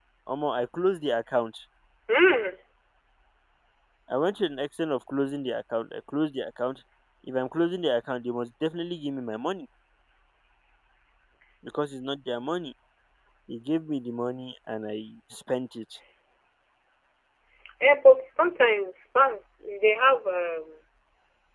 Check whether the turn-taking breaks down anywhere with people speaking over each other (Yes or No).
No